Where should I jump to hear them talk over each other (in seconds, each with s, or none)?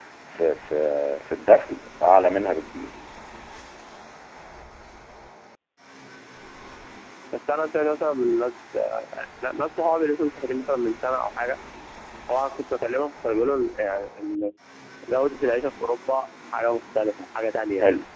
none